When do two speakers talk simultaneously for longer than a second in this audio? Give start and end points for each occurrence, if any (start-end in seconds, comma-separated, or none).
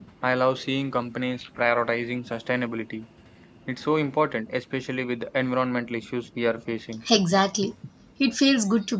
none